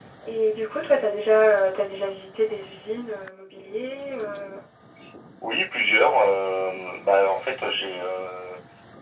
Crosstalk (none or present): none